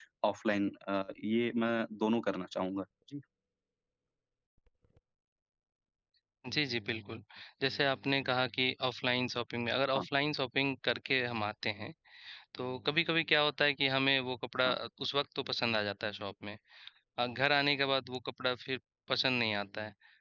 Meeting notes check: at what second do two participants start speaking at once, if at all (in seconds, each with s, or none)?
none